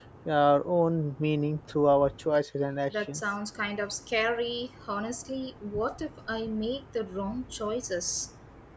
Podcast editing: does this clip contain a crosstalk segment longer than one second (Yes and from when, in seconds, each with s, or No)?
No